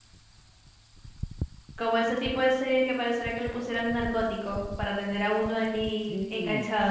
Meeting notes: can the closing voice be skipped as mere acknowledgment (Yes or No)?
No